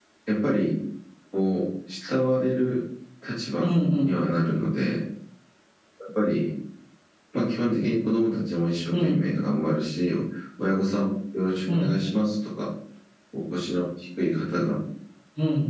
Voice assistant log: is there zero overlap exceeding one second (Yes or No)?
Yes